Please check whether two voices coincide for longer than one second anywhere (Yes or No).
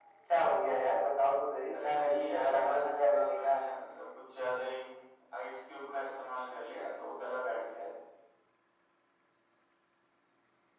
Yes